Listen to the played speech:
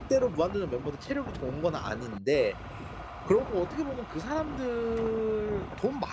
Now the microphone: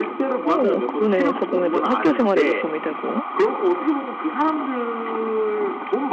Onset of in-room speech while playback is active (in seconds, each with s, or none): 0.4 s